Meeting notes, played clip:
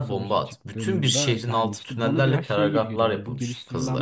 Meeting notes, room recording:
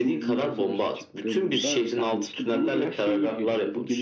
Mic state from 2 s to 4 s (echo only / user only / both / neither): echo only